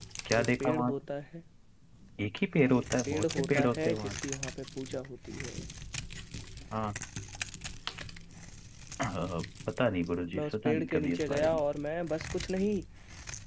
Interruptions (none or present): present